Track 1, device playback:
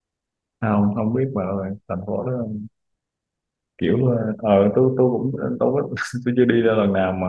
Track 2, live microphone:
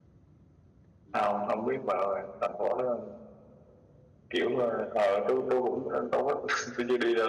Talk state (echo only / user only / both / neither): echo only